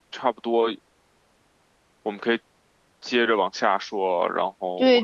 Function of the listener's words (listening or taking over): taking over